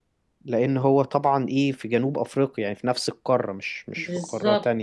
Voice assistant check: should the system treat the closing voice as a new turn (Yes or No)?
Yes